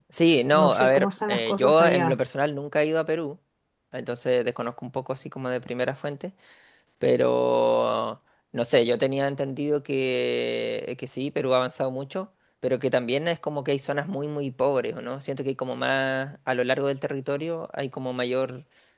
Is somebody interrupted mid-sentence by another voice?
Yes, from 0.5 s

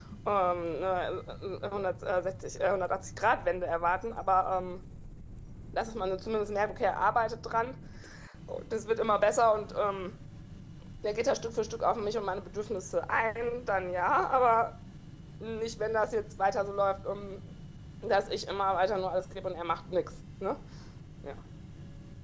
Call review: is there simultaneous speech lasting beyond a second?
No

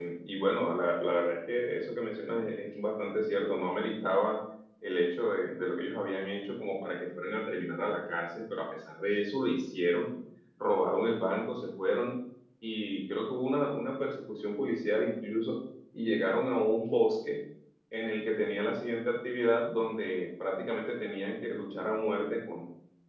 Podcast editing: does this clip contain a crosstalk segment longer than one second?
No

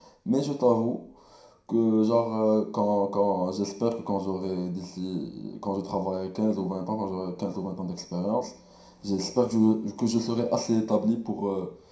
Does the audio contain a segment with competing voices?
No

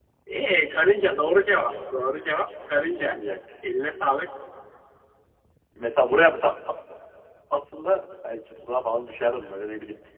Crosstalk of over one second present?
No

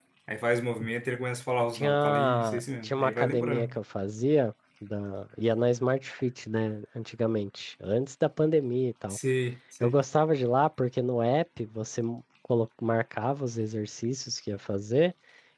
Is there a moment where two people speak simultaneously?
Yes, from 1.7 s

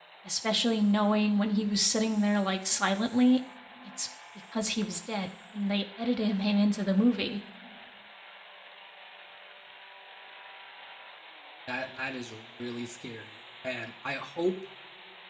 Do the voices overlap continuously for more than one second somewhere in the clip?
No

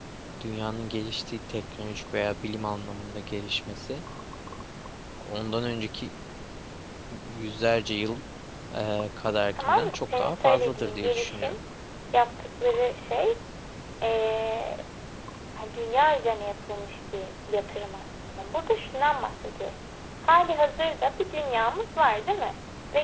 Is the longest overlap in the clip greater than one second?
Yes, from 9.6 s

